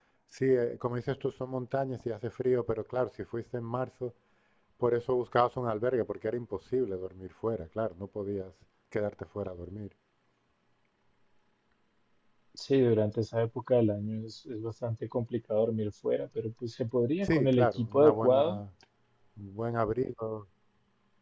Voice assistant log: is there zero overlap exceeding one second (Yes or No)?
No